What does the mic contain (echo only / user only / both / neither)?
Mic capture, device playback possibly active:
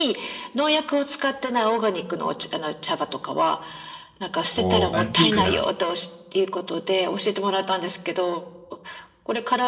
both